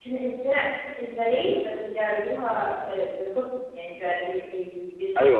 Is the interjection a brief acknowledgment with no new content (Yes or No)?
No